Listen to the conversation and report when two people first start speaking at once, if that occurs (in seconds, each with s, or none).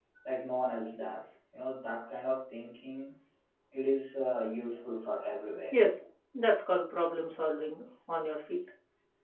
none